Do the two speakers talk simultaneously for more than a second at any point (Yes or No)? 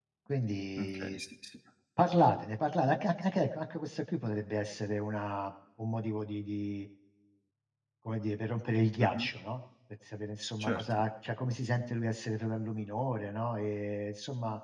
No